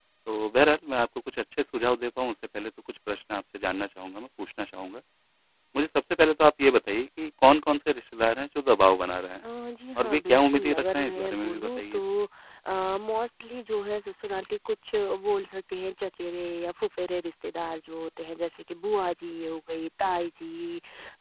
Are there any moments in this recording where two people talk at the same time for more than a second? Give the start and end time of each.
10.0-12.0

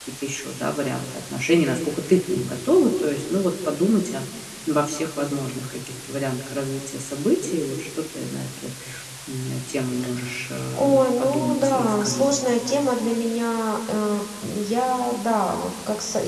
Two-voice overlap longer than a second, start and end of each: 10.8-12.3

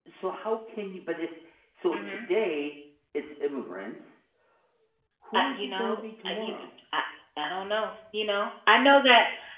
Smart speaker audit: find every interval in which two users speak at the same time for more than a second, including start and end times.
5.3-6.6

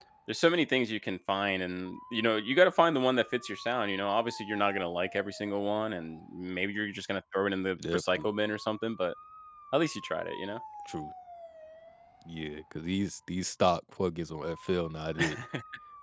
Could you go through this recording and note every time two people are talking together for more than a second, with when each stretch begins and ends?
none

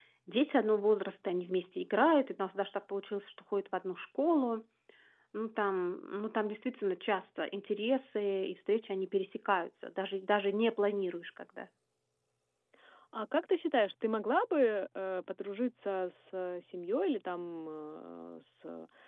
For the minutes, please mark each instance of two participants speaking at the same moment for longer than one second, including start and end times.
none

